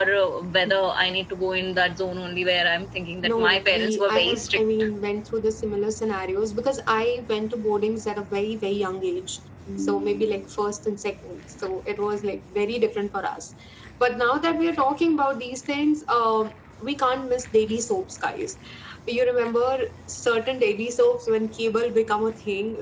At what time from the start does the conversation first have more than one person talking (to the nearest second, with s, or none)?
3 s